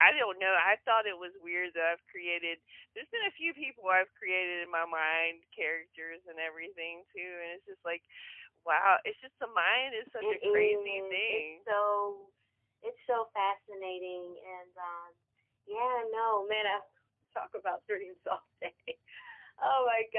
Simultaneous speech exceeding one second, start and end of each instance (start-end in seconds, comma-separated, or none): 10.2-11.4